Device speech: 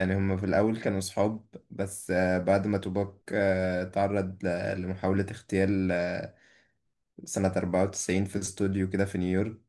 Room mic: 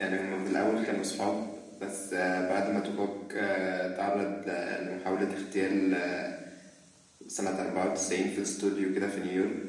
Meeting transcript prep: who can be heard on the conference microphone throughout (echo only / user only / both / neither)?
echo only